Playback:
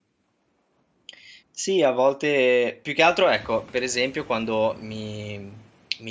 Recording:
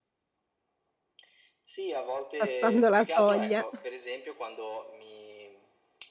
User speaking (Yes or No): Yes